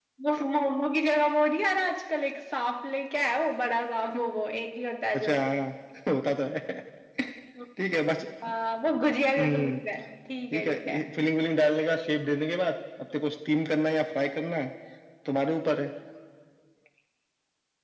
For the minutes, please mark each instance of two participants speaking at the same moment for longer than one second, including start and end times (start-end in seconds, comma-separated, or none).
none